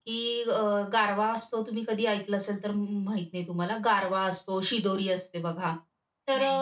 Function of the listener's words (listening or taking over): listening